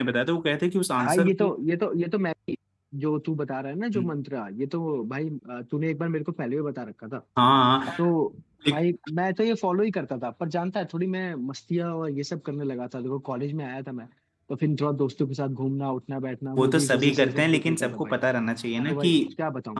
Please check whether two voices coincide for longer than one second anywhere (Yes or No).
Yes